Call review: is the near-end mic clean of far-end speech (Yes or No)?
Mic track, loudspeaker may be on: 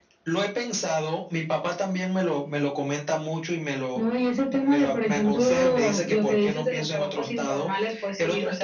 No